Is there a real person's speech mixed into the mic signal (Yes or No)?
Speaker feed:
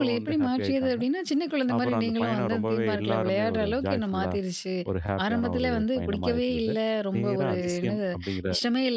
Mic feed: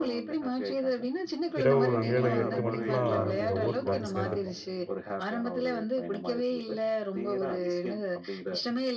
Yes